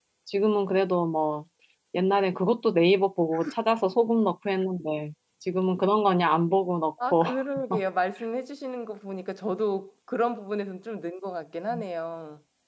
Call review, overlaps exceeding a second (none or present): none